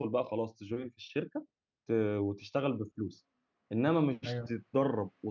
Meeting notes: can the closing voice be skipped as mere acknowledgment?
Yes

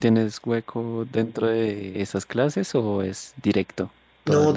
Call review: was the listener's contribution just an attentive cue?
No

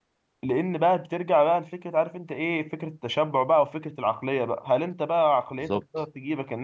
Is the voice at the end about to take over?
No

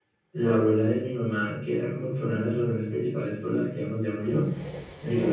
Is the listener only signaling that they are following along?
Yes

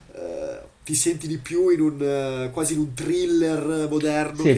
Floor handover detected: Yes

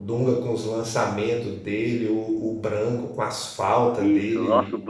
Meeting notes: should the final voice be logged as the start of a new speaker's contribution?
Yes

